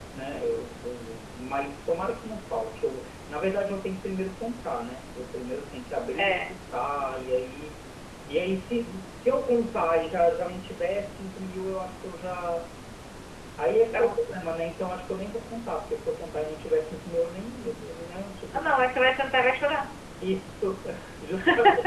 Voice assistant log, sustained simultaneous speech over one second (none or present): none